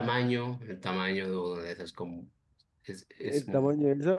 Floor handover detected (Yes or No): Yes